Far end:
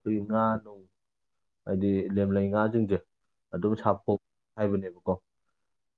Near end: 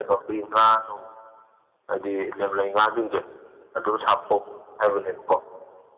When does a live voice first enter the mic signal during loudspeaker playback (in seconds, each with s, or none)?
none